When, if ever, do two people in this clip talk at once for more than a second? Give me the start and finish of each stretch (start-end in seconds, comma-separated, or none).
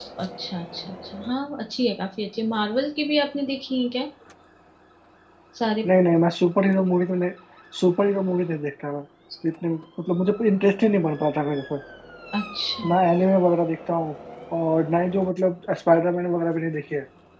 none